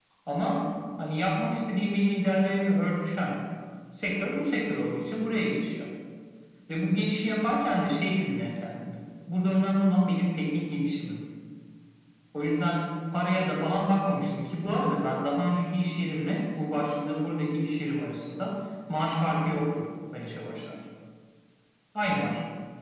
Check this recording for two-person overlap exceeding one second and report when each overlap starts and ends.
none

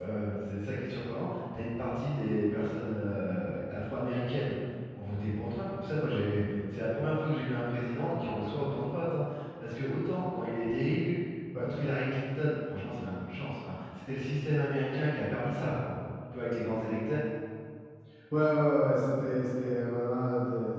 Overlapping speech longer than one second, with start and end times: none

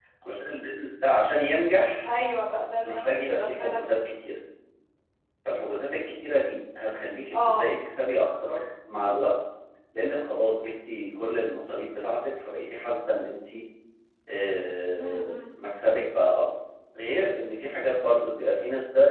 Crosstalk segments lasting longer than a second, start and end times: 2.8-4.0

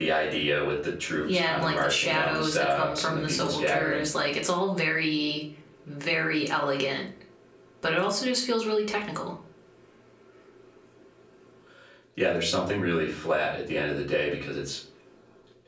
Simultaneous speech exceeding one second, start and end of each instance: 1.3-4.0

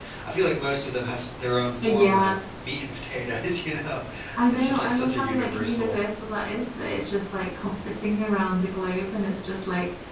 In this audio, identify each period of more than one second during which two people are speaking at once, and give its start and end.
4.5-6.0

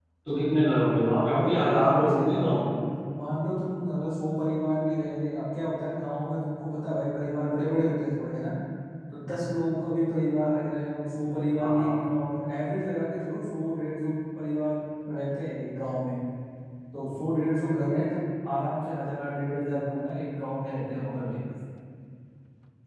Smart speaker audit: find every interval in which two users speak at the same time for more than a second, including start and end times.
1.1-2.6

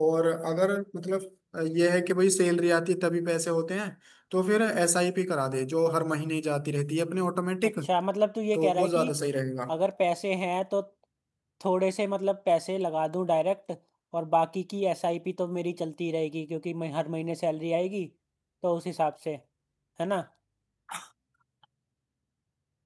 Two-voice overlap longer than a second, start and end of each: none

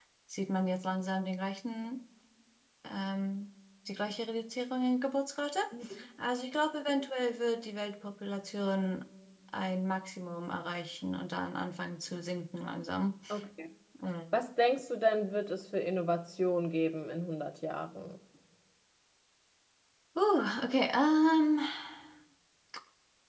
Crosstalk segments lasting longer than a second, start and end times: none

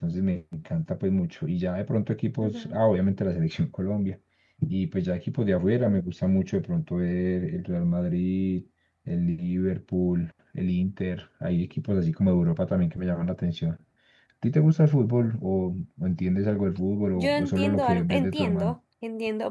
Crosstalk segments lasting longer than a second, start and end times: 17.2-18.8

